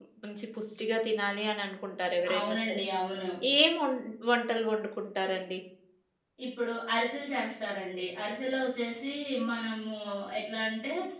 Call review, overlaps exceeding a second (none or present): none